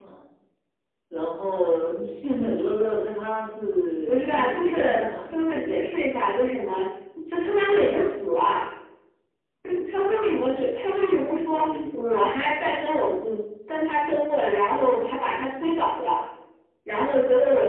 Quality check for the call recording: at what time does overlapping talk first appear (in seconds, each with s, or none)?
4.1 s